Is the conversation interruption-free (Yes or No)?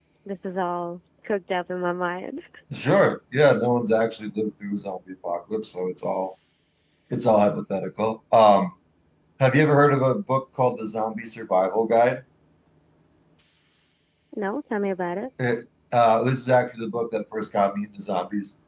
Yes